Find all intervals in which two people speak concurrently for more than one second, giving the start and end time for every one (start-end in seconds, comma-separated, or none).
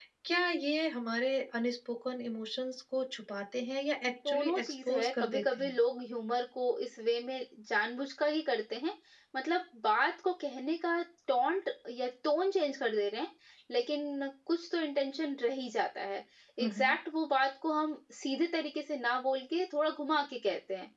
4.1-5.8